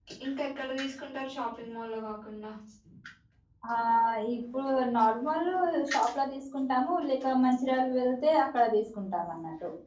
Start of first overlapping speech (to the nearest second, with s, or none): none